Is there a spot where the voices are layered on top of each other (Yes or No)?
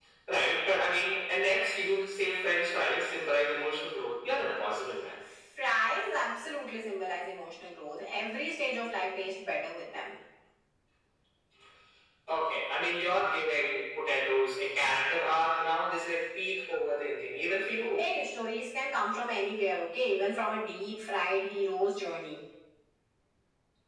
No